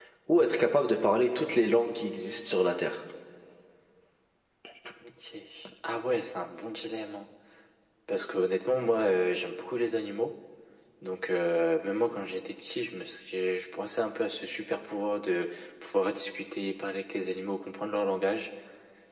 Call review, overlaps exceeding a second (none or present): none